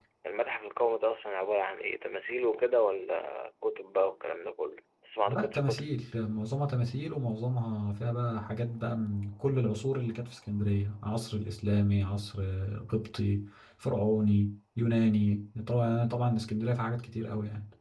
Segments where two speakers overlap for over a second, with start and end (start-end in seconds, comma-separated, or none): none